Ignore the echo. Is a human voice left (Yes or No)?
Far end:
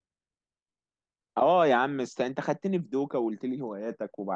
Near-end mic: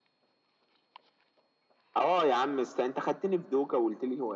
No